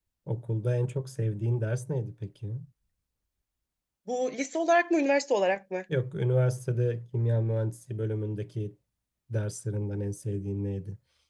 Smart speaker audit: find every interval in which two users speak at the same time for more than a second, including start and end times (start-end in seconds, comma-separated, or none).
none